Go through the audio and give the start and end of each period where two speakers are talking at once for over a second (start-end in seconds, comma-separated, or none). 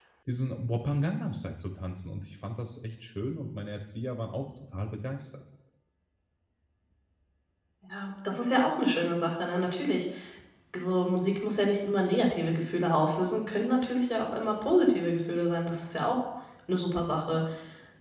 none